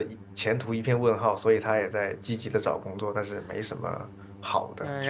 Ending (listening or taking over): taking over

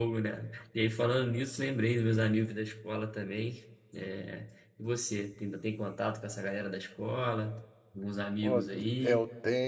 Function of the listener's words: taking over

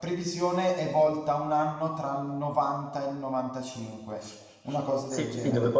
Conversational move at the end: taking over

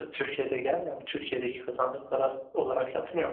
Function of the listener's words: taking over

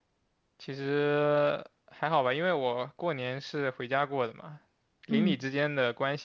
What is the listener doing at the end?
listening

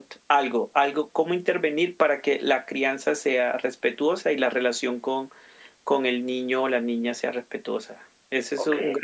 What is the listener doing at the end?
listening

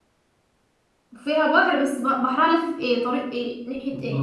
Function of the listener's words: taking over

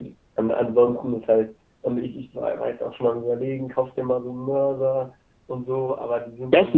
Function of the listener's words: taking over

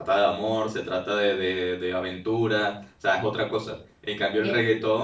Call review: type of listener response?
listening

